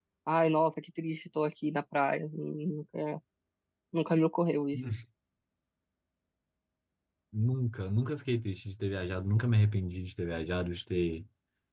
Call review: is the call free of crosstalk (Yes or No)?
Yes